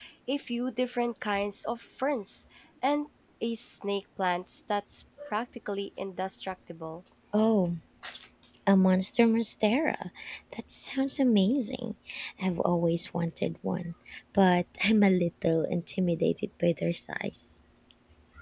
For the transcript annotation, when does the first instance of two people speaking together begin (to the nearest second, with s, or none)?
none